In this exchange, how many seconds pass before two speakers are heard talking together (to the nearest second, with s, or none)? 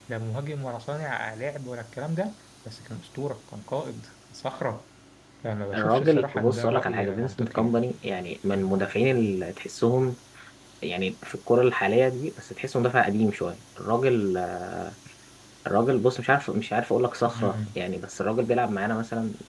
6 s